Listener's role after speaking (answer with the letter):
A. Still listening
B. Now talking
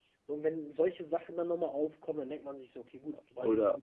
B